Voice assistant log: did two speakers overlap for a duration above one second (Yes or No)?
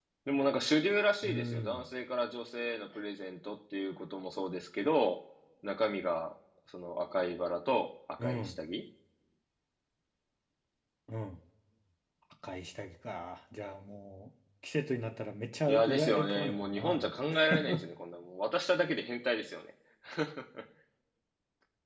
Yes